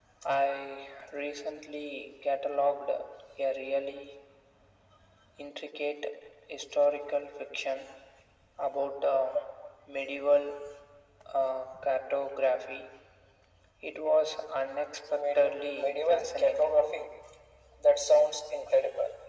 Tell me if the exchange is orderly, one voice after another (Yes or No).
No